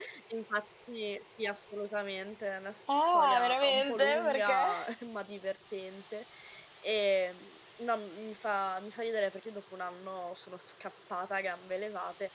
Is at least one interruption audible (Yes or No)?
Yes